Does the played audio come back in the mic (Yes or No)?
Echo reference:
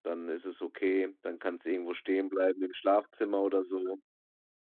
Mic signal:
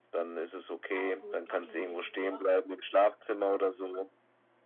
Yes